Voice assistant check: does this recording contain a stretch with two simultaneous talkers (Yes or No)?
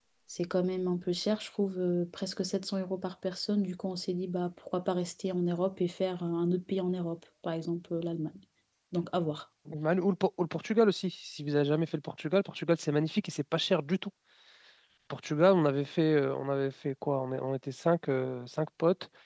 No